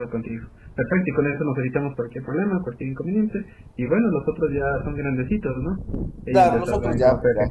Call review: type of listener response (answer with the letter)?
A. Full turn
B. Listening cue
A